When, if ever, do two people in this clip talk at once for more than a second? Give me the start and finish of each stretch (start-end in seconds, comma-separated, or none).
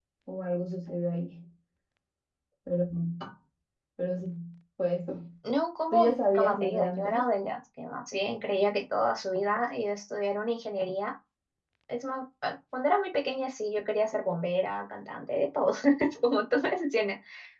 5.9-7.2